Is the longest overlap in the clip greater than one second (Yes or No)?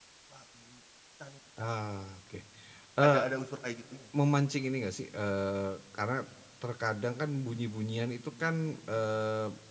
No